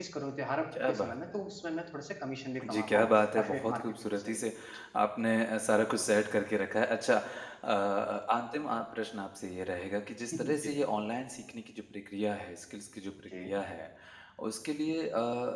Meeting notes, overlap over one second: present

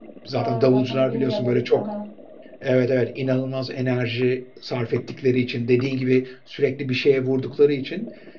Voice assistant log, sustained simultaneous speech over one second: present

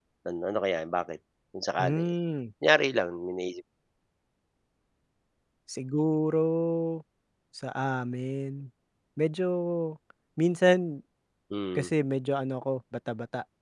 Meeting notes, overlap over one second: none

